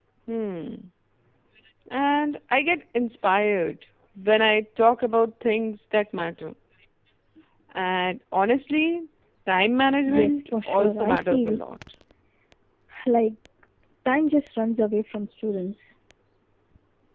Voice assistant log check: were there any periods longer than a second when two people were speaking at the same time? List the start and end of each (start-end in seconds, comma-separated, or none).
10.1-11.6